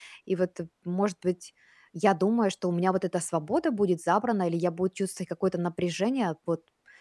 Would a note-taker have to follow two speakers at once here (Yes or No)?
No